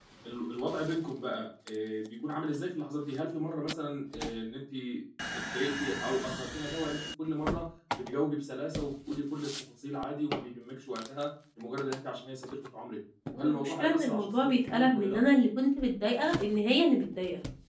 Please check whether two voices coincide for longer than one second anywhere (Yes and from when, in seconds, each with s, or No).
Yes, from 13.4 s